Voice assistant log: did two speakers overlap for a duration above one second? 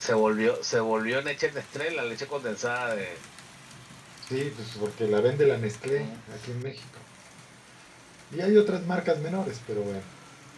No

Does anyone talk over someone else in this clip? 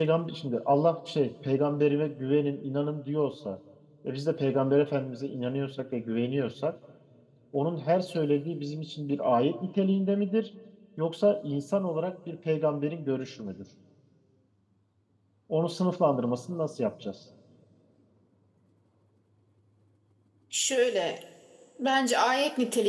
No

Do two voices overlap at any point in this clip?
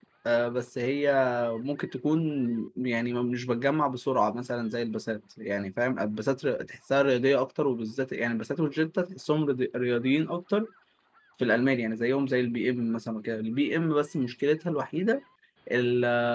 No

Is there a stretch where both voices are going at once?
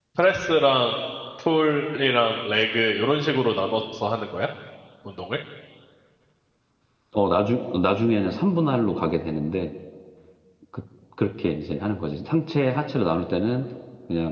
No

